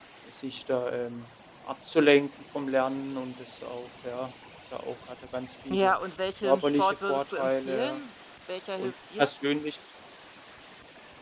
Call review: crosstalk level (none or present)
present